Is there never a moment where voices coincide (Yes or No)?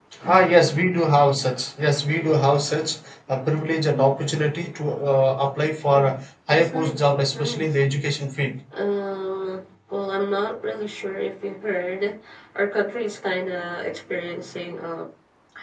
No